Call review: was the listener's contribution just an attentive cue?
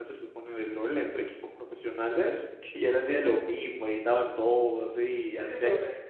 No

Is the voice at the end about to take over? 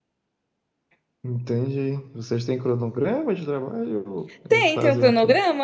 Yes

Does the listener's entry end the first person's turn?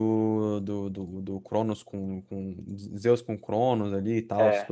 No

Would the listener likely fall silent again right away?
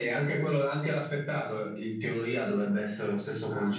Yes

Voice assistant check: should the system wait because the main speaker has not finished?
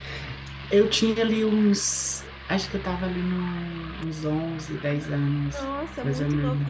No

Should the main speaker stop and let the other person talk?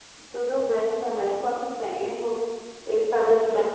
No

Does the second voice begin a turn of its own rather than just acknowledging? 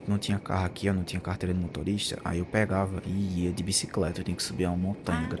No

